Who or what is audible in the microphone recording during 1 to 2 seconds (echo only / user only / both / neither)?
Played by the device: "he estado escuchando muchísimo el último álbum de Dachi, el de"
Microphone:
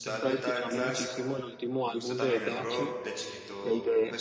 both